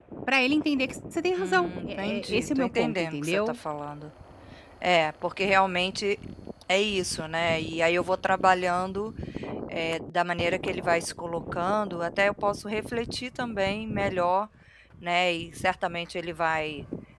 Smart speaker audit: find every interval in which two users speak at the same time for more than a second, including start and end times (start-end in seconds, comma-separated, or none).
1.4-3.6